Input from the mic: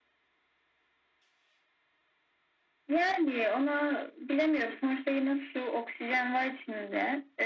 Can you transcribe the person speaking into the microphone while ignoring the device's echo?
none

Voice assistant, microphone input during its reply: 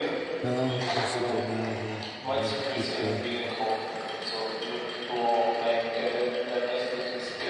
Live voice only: Ja, es gibt ja mehrere, ähm, gute

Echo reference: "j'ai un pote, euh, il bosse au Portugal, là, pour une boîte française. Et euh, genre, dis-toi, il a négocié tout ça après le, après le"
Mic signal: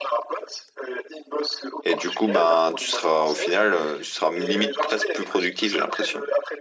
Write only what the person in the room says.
Et du coup, ben, tu seras au final, euh, tu seras limite presque plus productif, j'ai l'impression.

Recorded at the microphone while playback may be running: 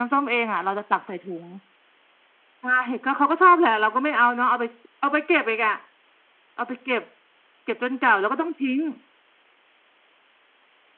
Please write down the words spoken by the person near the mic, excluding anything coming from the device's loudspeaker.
none

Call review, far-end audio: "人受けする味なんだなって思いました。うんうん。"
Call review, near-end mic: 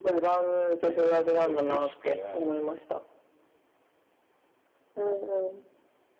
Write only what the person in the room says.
僕、なんだろう、レシピは、

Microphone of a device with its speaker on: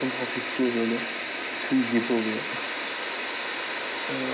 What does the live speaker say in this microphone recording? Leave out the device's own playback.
none

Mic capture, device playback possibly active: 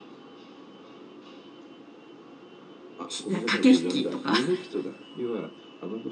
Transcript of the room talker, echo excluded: ひ、駆け引きとか

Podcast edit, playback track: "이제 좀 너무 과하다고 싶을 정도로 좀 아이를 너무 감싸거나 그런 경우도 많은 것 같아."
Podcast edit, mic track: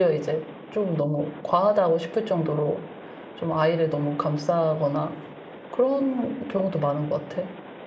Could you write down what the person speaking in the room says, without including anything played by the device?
none

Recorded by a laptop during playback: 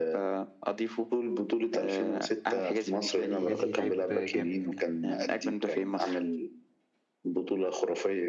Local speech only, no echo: حجازي لعيب جامد

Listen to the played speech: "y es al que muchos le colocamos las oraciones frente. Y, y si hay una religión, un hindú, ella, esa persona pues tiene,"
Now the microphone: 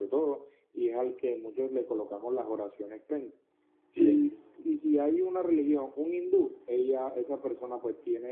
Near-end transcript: Sí.

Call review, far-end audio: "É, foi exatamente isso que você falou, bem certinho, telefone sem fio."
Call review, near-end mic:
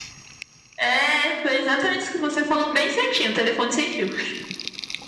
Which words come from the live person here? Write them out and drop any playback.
none

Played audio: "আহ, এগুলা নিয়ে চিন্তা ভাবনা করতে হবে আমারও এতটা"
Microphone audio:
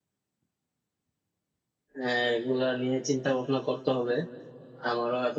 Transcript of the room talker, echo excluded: none

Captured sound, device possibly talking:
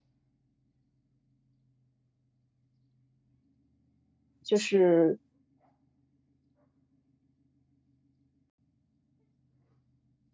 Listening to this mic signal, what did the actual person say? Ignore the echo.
就是

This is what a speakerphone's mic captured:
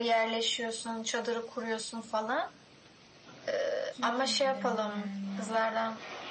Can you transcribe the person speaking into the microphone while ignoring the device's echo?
kim kim gidelim yani?

